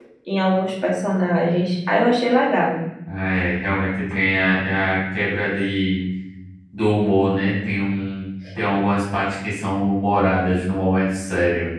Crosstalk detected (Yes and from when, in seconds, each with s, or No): No